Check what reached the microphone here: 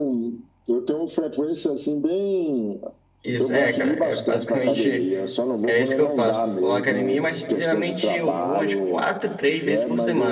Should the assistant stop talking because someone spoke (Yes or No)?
Yes